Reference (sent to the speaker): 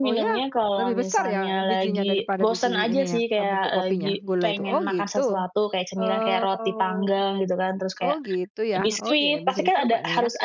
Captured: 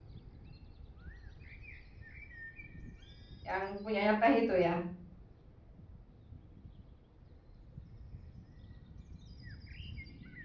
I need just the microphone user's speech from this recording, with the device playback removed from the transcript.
Yang punyanya teh itu ya?

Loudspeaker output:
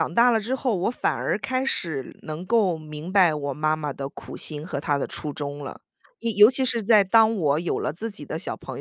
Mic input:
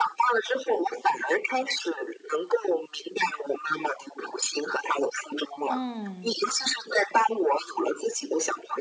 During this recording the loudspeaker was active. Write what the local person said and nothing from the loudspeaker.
嗯。

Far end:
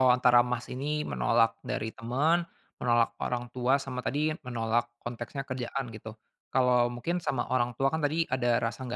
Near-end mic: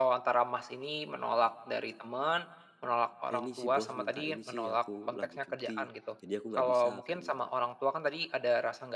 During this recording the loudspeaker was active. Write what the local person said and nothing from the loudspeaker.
"Eh, ini, si Bos minta ini sih, aku lagi cuti, jadi aku nggak bisa." kayak gitu,

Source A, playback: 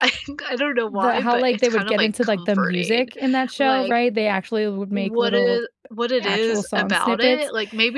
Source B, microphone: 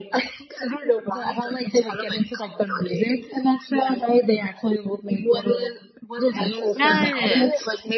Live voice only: Yes.

